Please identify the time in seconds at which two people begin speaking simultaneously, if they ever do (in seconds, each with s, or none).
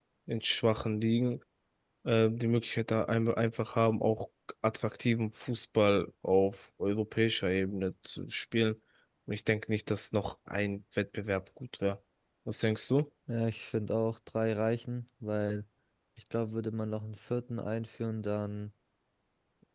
none